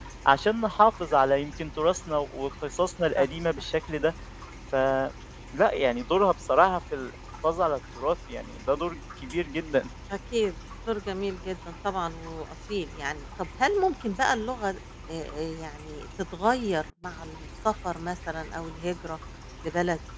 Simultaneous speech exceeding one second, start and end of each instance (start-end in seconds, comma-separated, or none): none